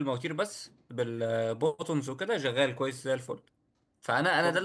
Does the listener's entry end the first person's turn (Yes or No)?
No